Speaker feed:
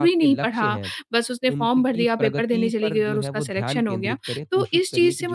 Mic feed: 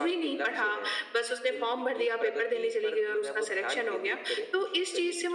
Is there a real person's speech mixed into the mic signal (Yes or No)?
No